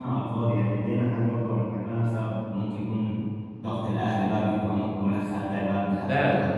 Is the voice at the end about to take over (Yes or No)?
Yes